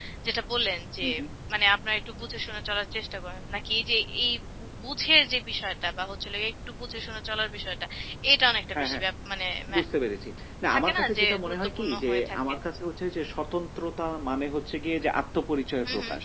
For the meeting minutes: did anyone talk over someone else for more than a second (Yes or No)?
Yes